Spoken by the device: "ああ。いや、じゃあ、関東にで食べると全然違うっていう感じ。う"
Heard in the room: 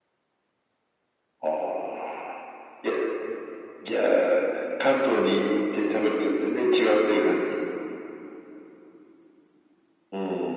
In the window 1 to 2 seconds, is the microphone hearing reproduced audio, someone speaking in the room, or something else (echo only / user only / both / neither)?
echo only